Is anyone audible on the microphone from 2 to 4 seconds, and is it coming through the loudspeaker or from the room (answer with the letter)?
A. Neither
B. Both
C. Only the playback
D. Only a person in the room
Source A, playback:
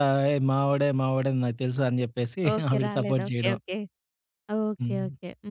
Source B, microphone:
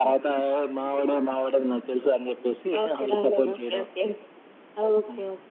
C